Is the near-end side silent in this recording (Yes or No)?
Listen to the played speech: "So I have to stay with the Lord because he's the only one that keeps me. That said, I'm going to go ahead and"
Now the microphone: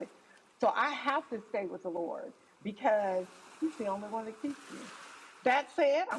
Yes